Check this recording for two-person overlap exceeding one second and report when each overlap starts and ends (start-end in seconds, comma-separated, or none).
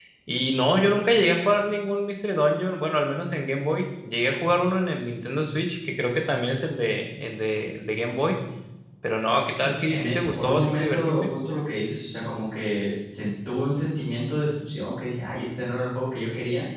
9.6-11.3